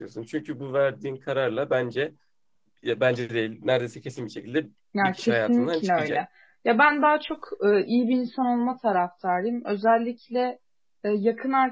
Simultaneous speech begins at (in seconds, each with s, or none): 4.9 s